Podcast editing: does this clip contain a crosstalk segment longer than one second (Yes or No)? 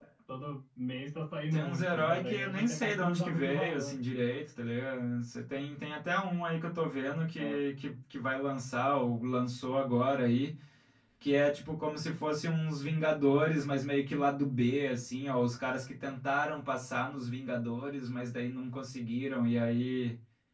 Yes